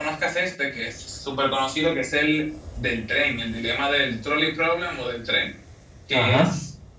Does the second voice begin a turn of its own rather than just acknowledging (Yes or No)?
No